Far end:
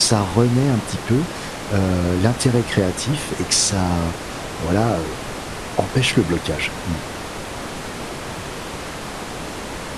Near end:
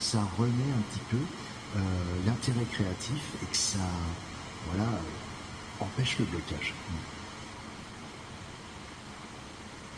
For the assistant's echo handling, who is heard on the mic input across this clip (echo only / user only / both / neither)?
echo only